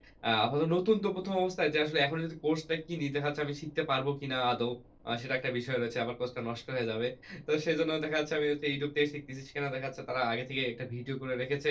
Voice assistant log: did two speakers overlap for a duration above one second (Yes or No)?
No